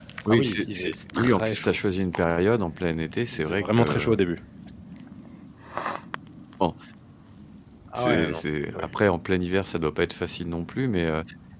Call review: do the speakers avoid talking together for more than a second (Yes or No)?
No